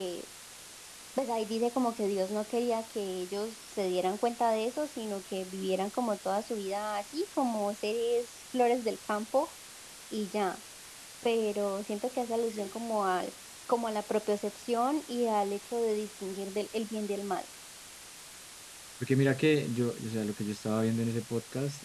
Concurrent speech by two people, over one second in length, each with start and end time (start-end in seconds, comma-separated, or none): none